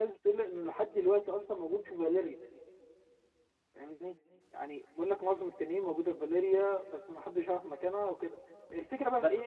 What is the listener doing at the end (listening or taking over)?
listening